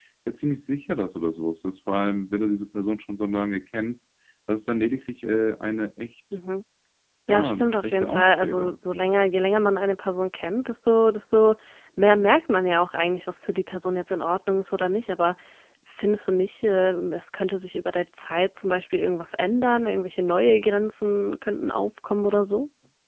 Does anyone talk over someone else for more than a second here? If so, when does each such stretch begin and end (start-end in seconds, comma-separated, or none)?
7.3-8.8